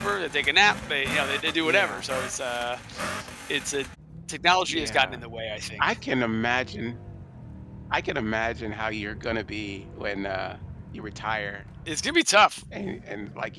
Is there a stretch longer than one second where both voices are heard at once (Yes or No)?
No